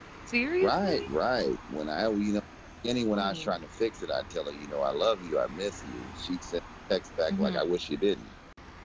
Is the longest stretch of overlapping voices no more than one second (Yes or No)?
Yes